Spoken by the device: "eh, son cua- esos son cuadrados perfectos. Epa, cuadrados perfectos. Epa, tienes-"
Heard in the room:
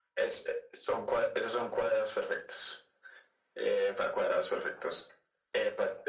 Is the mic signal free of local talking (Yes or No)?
Yes